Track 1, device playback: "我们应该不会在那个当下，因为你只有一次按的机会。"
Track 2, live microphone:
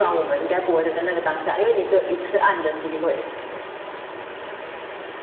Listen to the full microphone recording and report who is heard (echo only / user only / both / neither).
echo only